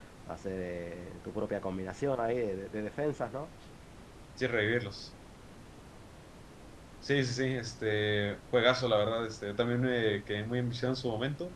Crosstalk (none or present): none